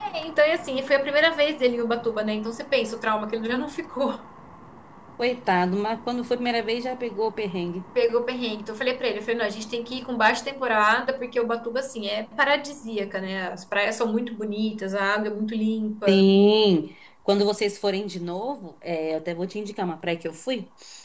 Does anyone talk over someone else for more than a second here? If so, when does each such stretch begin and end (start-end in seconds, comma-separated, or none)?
none